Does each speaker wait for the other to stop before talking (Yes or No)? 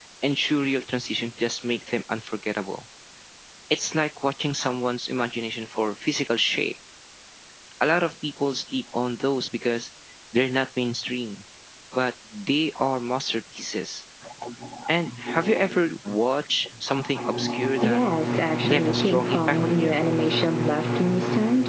No